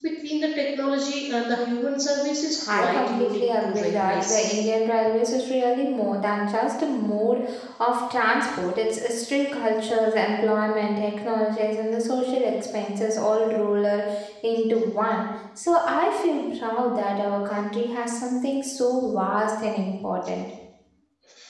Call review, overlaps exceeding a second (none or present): present